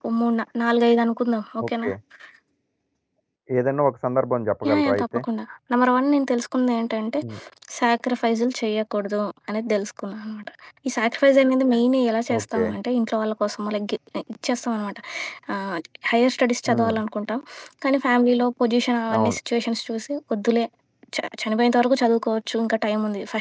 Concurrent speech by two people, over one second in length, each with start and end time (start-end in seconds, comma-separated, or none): none